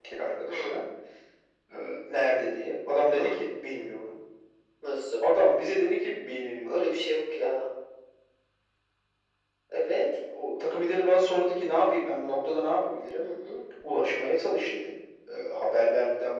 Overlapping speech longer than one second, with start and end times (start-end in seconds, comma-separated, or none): none